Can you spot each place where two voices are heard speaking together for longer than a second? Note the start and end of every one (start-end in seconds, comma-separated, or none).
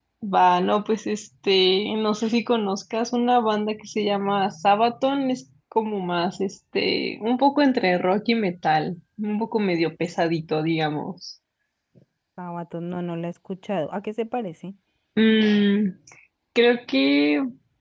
none